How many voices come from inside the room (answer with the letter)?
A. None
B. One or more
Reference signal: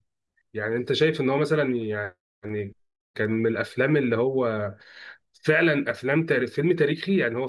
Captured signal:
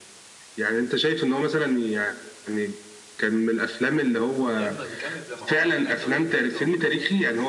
B